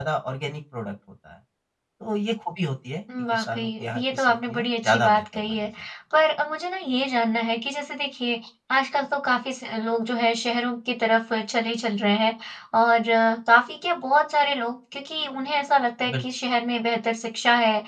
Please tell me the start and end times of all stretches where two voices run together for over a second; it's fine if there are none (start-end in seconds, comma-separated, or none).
3.3-5.7